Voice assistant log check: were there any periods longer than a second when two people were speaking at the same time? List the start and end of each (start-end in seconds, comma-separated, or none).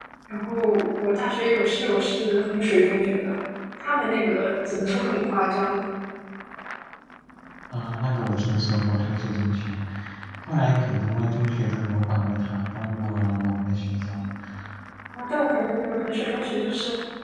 none